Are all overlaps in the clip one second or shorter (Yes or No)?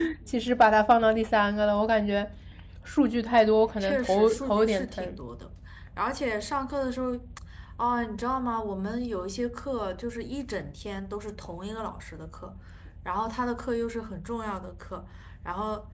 No